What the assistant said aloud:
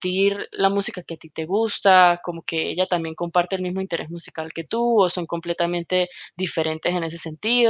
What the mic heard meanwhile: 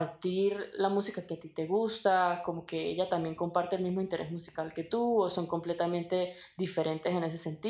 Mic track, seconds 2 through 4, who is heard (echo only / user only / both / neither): echo only